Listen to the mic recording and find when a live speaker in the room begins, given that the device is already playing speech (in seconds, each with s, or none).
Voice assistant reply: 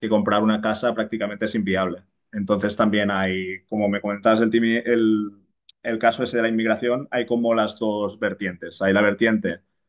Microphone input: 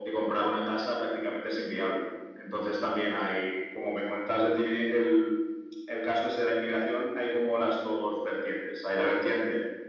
none